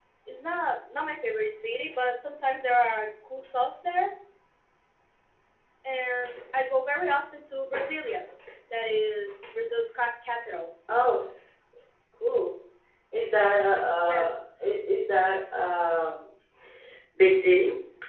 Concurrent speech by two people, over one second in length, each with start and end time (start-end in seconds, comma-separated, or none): none